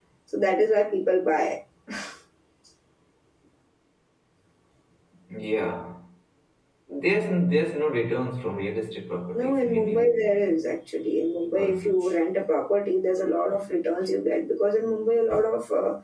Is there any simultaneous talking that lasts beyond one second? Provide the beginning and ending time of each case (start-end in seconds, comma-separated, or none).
9.3-10.6